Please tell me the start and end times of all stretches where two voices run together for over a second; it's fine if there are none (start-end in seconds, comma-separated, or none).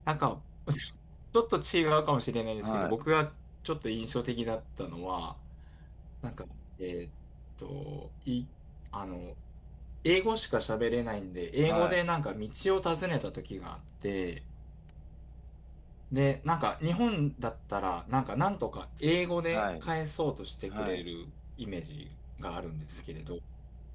none